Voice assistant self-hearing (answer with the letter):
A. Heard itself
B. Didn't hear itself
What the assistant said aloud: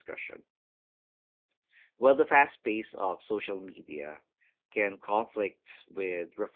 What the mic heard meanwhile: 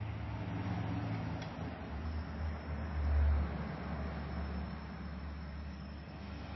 B